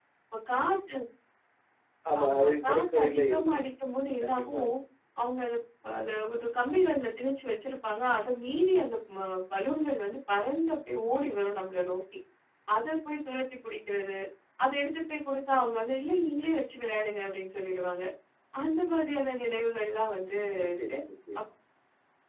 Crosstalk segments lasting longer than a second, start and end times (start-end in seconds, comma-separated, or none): 2.2-3.6